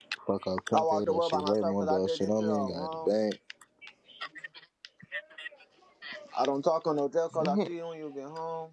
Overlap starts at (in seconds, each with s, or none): 0.7 s